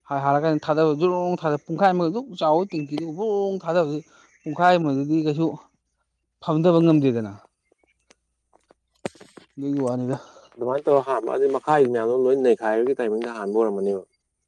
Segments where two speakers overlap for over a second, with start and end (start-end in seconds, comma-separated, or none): none